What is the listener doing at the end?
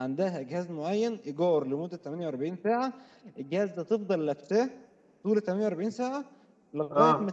listening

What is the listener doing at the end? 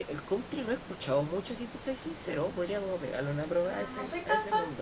taking over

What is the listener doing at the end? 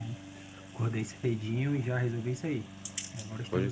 taking over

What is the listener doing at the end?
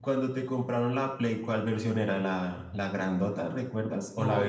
taking over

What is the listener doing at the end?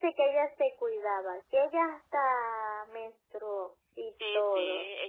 taking over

